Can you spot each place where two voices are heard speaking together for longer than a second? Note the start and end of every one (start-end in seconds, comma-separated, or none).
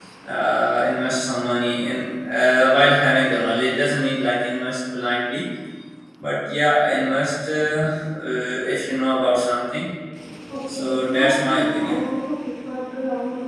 10.7-12.0